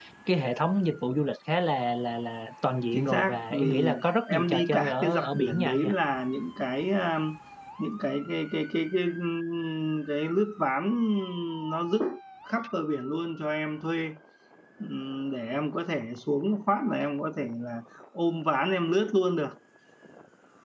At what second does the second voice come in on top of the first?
2.9 s

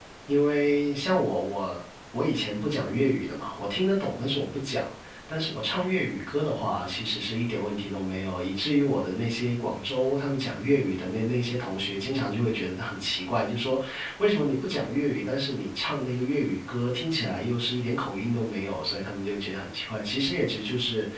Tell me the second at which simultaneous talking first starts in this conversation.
none

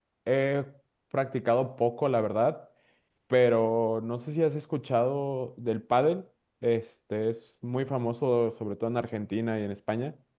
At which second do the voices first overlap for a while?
none

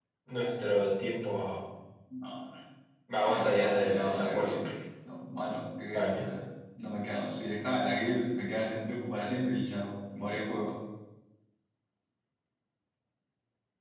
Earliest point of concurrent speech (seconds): 3.3 s

